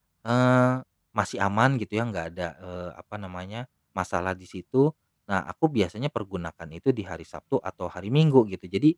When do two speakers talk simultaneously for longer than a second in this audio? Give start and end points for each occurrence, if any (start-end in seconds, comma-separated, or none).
none